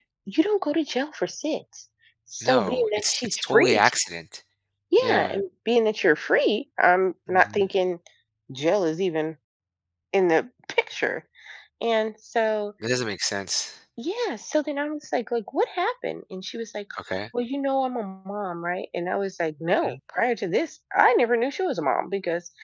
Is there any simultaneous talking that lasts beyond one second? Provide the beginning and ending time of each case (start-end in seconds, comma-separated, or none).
2.4-3.9